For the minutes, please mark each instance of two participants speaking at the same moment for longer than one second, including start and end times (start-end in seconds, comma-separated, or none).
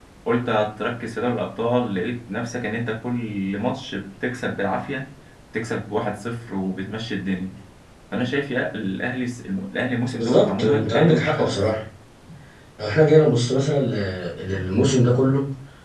10.2-11.7